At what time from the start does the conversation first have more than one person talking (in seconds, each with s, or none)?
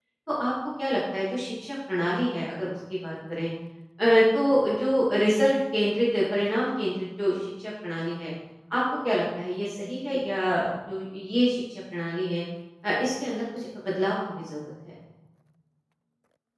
none